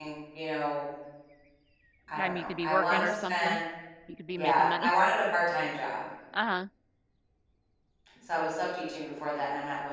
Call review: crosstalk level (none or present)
present